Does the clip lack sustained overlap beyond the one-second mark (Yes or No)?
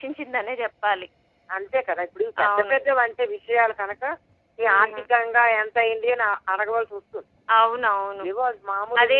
Yes